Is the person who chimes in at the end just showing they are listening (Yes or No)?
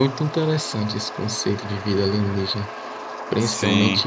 Yes